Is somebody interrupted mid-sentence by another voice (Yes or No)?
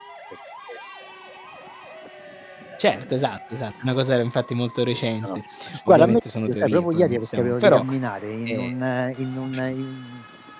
Yes